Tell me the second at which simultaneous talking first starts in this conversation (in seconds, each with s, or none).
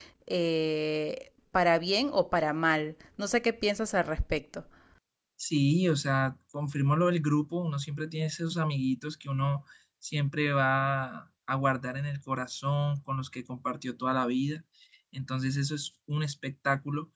none